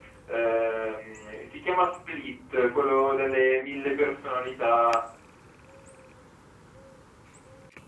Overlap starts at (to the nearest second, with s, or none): none